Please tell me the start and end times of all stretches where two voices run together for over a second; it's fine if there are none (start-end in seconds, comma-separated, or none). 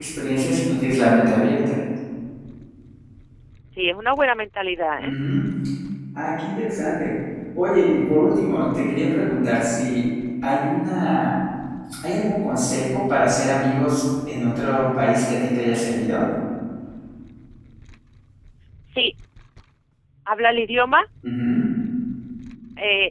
none